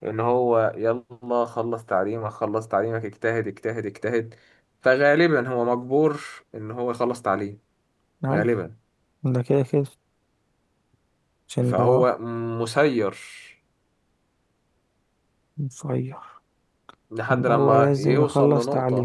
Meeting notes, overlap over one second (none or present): present